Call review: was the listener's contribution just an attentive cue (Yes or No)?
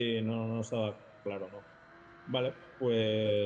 No